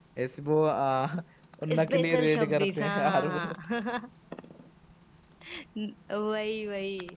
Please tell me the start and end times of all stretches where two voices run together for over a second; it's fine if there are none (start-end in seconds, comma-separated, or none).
1.8-3.5